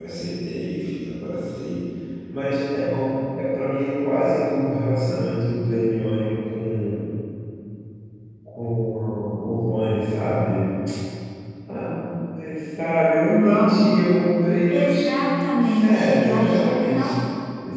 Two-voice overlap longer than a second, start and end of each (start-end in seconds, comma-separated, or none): 15.6-17.1